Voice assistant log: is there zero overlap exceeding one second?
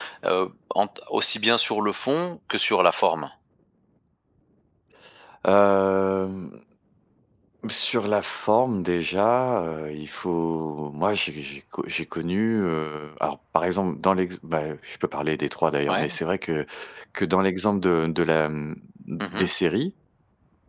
Yes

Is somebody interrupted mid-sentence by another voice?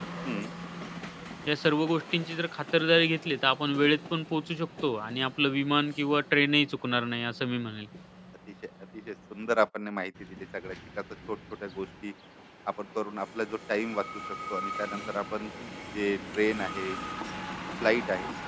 No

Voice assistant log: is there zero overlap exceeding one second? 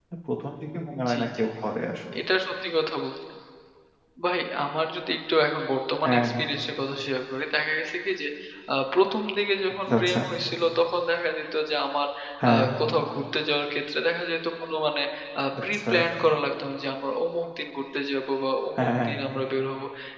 Yes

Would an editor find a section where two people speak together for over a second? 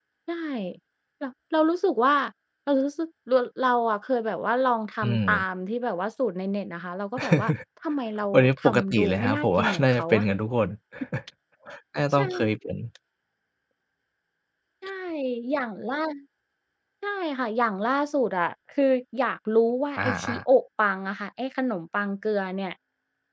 Yes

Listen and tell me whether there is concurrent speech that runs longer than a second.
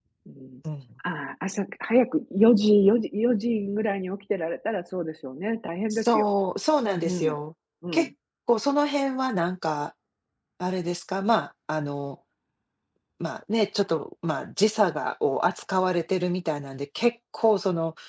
No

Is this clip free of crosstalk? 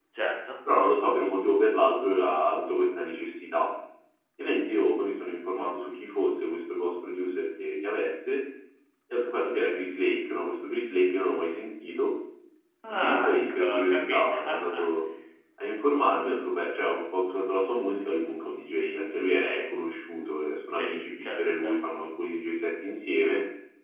No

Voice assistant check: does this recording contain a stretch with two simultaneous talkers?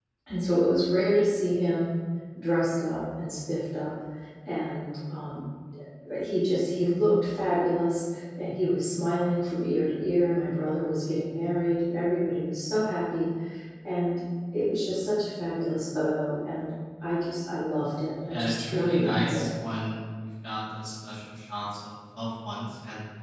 Yes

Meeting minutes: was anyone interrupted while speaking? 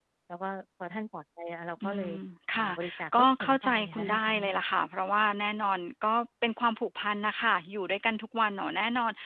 Yes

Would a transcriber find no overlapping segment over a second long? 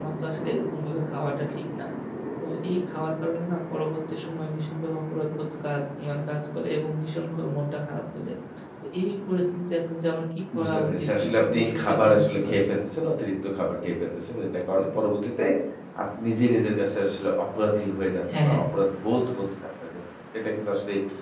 No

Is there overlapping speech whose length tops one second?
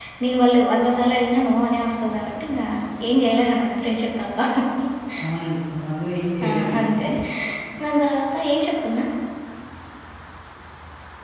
No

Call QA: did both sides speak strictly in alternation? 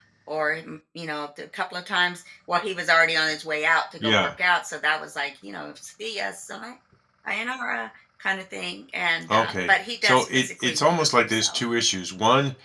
No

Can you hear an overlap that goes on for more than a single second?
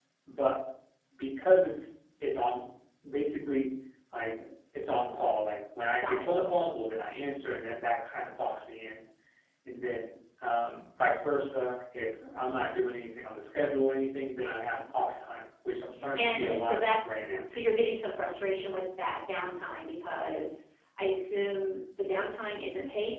Yes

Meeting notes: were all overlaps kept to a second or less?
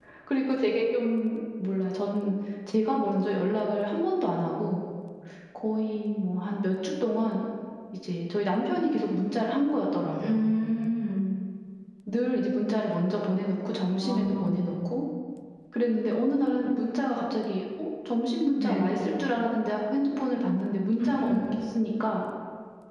Yes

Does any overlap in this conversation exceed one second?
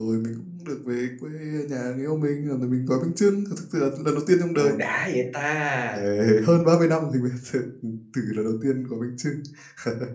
No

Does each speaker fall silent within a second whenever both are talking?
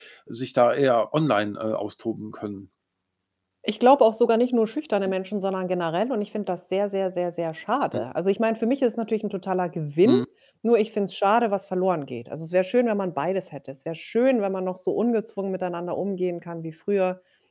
Yes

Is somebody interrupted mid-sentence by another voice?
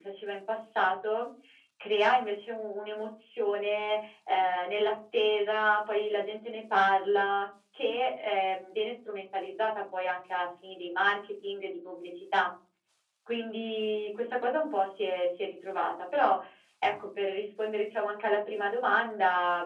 No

